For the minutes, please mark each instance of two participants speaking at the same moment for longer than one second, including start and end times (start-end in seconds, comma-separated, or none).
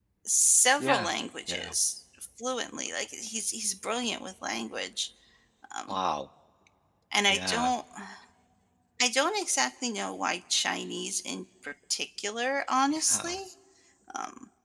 none